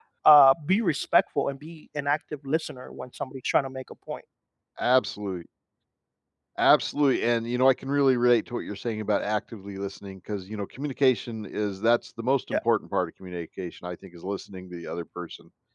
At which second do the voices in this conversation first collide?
none

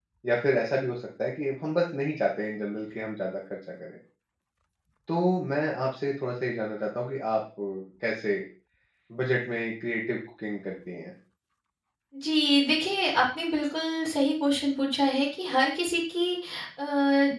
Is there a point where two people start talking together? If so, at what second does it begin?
none

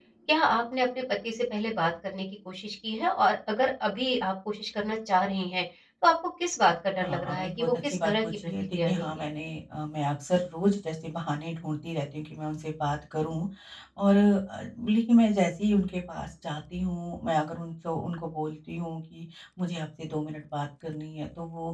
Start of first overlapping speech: 7.0 s

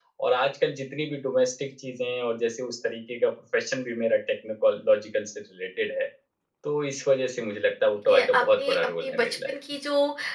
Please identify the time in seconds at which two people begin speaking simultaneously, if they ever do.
8.1 s

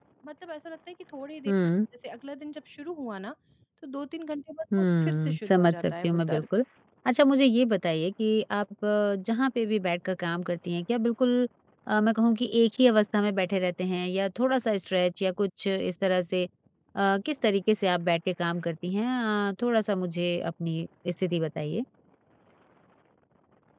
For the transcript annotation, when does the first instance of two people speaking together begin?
4.7 s

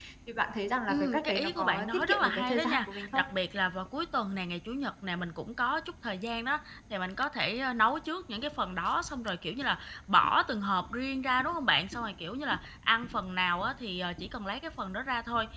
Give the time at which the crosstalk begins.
0.9 s

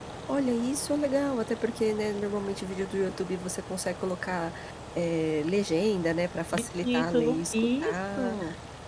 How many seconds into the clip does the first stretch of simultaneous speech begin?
6.5 s

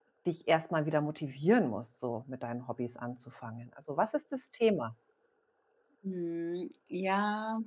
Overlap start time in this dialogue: none

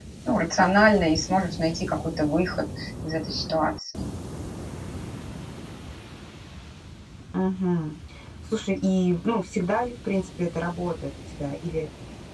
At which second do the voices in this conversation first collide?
none

